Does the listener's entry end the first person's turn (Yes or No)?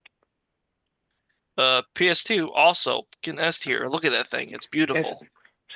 Yes